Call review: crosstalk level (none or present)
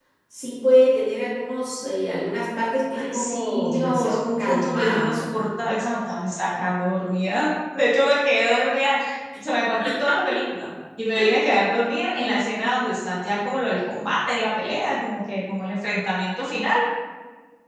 present